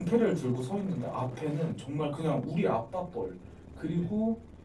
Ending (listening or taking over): listening